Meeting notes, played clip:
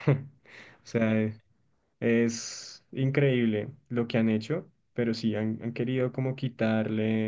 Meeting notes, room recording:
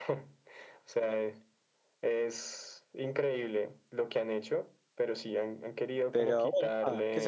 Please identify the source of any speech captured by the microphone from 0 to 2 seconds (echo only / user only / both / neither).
echo only